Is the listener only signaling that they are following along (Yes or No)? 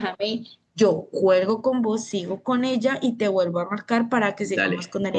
No